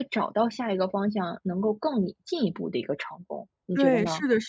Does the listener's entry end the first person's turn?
Yes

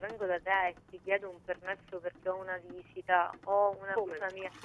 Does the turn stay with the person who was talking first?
Yes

